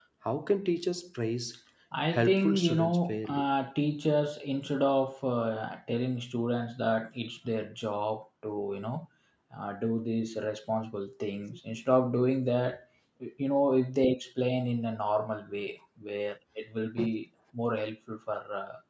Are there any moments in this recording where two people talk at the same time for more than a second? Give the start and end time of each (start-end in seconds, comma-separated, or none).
2.2-3.5